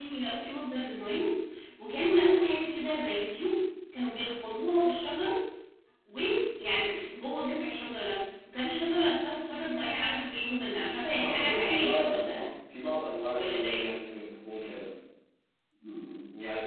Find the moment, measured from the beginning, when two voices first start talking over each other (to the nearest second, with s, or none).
11 s